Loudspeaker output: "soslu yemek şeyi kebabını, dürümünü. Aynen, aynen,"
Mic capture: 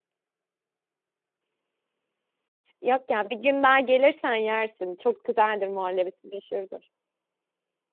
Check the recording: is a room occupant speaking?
Yes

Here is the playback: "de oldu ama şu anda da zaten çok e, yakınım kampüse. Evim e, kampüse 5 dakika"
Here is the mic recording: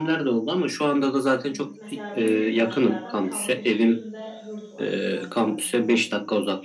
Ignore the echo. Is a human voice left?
Yes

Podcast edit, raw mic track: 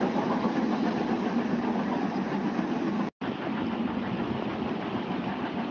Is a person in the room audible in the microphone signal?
No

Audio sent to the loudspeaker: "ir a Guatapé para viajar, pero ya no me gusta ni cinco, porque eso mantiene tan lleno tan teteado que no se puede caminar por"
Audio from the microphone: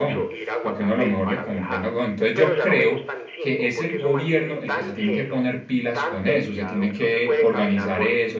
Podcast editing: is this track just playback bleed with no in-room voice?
No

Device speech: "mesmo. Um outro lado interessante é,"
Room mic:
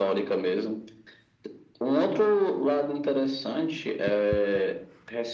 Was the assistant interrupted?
No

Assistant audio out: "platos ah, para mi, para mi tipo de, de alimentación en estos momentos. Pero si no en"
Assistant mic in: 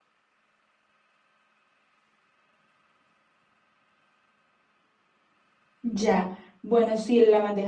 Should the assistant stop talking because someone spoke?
Yes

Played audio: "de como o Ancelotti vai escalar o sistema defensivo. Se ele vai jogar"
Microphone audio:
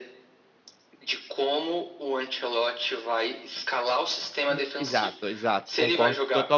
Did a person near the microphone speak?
Yes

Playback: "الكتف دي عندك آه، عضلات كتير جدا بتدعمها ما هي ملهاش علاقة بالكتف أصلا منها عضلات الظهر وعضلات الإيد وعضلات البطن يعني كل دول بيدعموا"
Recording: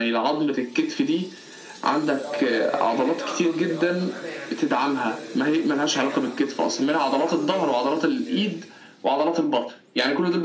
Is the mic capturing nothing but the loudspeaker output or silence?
No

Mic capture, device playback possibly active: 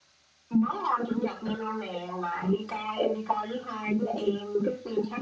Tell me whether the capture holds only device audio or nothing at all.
Yes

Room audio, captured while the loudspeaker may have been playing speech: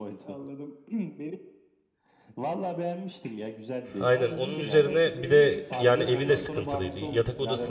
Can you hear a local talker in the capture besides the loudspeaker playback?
Yes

